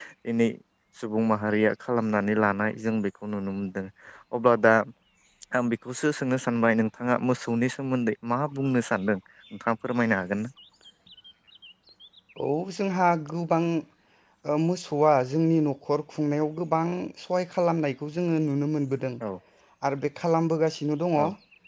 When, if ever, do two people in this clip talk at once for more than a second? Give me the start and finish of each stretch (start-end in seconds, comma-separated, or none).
none